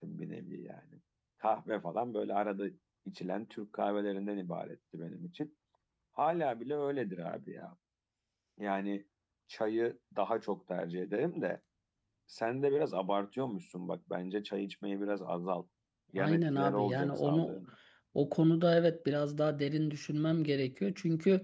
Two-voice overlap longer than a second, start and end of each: 16.2-17.6

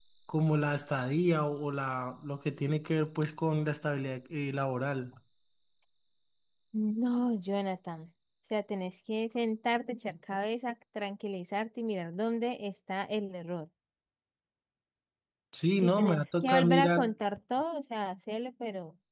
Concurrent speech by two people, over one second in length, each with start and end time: 15.8-17.0

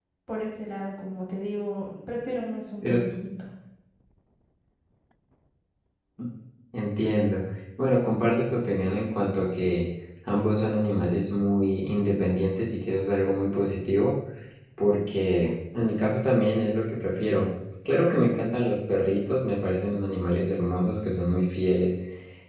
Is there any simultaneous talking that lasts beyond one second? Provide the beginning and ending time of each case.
none

